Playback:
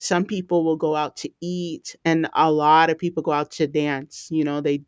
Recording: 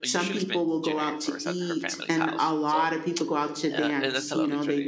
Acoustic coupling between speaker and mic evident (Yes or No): Yes